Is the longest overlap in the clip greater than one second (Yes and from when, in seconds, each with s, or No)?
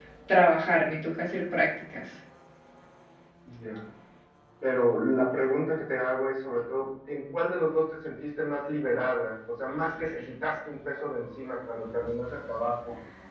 No